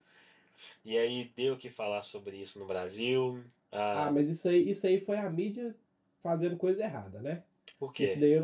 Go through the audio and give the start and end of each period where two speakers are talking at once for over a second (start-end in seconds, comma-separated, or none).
none